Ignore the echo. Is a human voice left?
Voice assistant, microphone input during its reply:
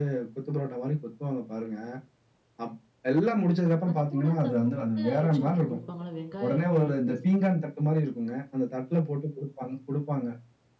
Yes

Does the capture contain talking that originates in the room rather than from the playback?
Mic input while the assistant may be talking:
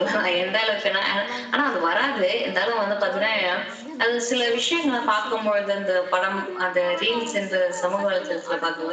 Yes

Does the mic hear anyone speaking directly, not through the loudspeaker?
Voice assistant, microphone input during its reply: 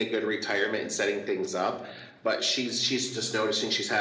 No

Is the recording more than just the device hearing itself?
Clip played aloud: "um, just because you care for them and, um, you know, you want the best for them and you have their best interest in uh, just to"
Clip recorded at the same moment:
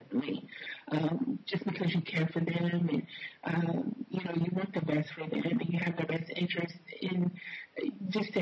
No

